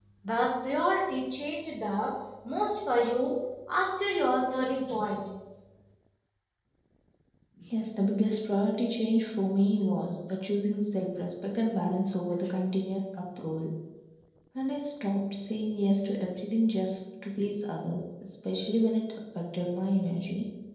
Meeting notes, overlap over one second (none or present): none